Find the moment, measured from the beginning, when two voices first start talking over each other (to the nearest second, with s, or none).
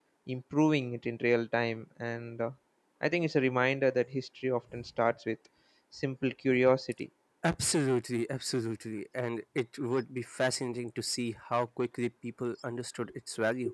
none